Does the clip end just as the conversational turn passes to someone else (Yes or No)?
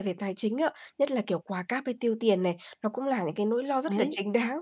No